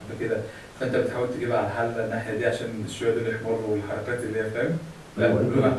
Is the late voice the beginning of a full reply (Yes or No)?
Yes